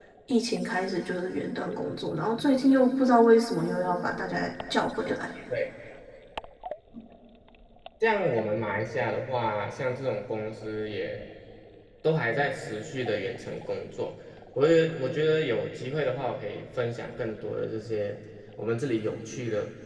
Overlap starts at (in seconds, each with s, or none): none